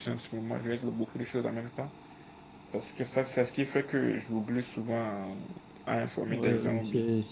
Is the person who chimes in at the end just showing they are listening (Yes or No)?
No